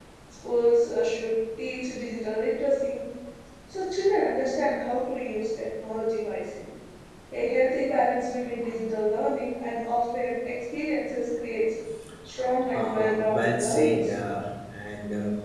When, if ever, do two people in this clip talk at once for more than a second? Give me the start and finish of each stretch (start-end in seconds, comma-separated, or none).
12.7-14.1